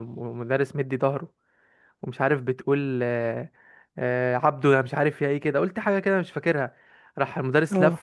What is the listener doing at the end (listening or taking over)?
listening